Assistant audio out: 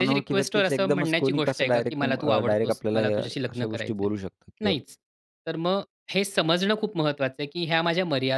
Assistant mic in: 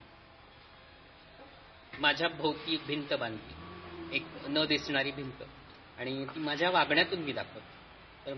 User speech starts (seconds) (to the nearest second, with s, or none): 2 s